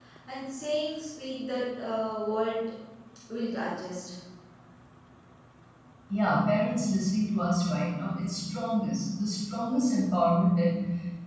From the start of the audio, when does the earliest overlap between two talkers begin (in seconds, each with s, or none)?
none